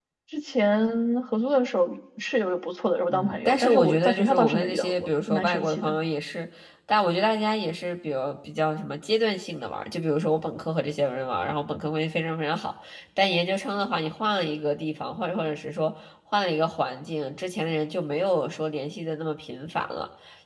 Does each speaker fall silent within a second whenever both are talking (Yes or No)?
No